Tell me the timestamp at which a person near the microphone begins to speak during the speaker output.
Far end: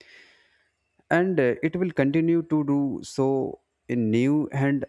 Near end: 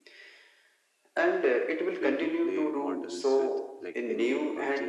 1.8 s

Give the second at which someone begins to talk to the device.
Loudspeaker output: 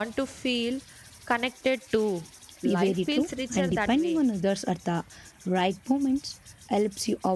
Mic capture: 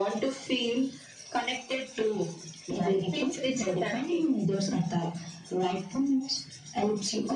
none

